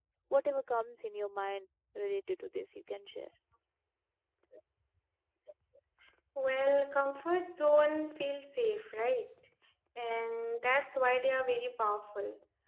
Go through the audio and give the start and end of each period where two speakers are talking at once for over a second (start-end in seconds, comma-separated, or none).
none